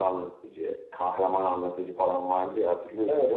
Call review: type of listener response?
taking over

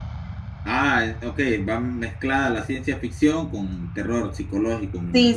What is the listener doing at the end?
taking over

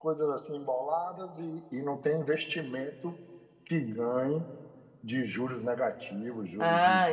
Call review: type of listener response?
taking over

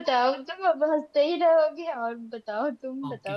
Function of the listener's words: taking over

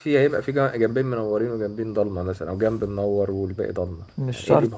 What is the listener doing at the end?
taking over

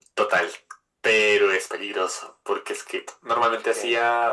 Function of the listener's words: listening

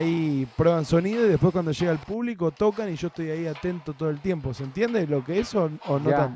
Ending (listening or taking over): taking over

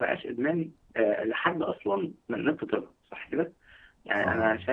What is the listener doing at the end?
listening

